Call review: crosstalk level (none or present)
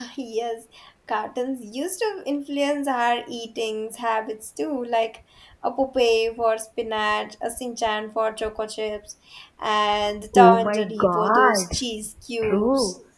present